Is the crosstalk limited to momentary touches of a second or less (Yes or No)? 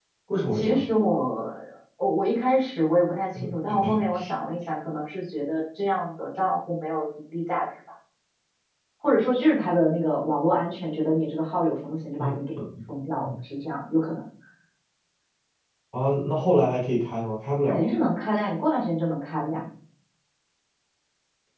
Yes